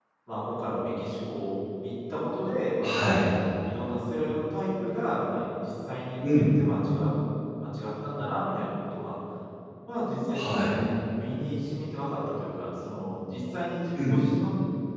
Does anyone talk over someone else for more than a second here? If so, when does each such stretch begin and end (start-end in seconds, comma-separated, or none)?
none